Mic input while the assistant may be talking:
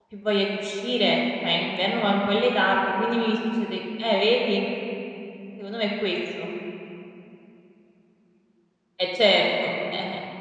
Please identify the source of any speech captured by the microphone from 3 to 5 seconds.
user only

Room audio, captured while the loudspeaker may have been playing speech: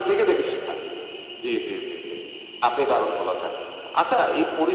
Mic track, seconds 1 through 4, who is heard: echo only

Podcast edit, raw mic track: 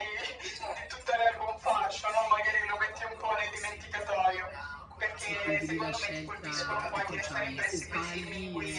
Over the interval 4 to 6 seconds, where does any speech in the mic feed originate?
both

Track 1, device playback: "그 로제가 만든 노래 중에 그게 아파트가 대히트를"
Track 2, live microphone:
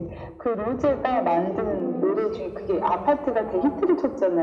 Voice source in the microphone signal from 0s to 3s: both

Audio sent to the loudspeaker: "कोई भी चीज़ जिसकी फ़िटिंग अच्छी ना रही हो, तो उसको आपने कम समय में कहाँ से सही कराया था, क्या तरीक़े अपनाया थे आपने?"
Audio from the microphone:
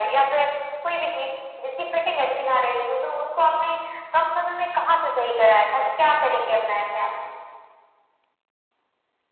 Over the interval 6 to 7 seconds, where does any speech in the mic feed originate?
echo only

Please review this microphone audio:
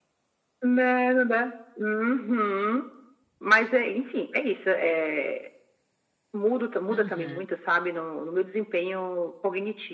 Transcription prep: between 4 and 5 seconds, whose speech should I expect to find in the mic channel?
echo only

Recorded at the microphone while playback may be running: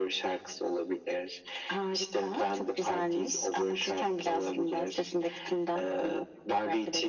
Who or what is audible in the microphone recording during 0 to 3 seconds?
echo only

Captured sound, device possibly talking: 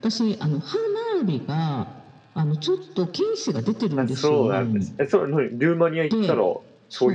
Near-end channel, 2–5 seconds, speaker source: both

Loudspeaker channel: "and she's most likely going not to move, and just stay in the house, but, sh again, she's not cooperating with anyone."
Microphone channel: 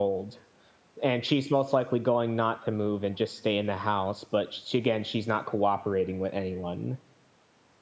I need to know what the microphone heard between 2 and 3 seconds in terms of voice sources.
echo only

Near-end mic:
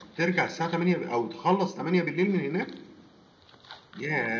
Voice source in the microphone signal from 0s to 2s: echo only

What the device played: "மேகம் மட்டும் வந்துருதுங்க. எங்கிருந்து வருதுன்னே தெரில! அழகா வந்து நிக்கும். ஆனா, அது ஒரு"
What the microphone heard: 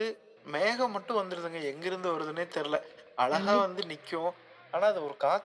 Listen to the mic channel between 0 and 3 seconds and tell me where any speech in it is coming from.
echo only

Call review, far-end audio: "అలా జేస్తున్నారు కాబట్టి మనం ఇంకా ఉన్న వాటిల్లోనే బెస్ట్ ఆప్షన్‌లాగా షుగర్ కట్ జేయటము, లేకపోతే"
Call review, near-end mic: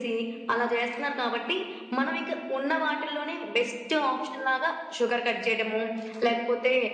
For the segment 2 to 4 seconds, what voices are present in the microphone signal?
echo only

